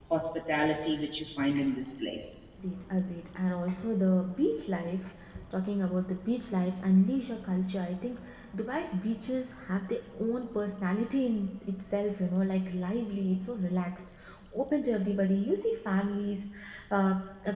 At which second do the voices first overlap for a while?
none

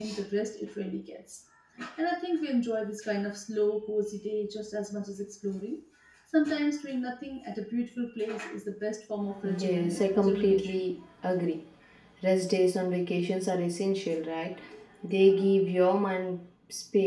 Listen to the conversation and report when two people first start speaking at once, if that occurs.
9.4 s

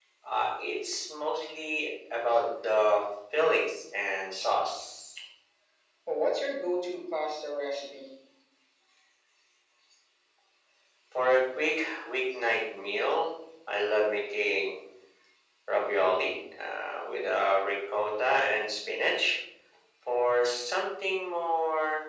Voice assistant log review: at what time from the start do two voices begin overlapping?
none

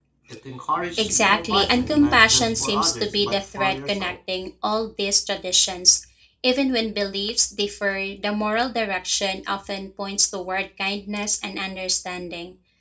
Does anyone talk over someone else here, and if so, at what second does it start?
1.0 s

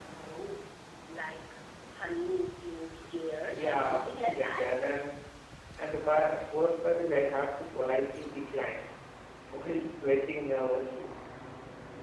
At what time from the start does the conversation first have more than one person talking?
3.5 s

